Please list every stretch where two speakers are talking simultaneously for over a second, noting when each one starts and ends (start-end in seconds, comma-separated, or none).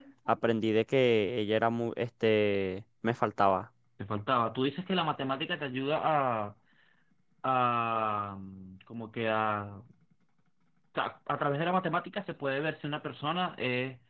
none